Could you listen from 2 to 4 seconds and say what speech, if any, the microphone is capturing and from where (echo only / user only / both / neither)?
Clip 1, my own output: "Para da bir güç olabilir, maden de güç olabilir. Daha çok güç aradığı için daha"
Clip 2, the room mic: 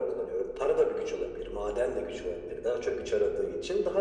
echo only